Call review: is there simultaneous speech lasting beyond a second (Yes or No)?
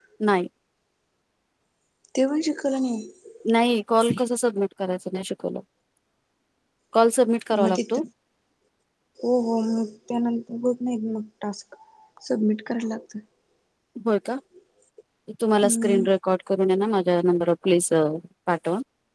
No